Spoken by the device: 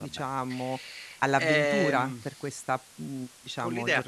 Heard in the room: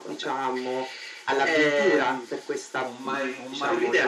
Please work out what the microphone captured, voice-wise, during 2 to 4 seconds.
both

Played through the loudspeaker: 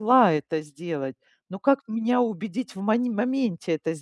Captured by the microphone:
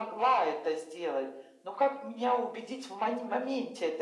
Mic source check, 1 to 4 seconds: echo only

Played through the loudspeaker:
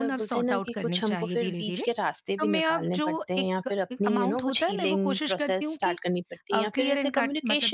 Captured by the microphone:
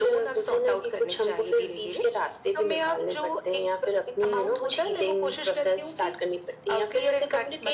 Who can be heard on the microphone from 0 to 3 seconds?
echo only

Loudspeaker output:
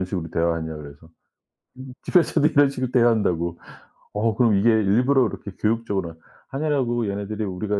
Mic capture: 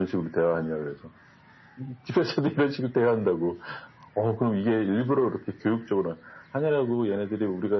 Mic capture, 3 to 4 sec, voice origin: echo only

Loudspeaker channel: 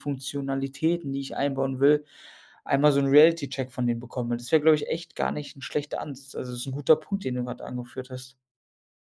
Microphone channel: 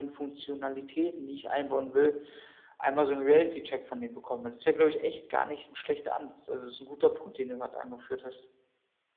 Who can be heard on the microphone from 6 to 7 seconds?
echo only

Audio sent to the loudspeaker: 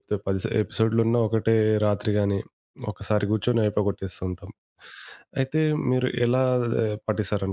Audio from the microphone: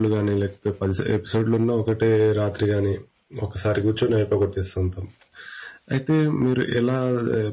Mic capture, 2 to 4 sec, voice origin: echo only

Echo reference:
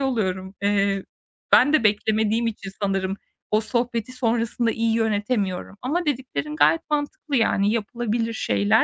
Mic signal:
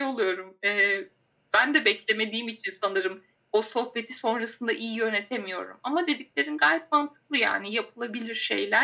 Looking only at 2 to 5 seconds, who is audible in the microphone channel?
echo only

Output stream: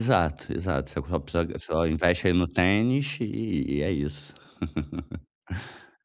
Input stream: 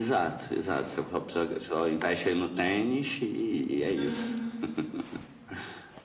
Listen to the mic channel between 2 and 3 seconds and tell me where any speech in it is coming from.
echo only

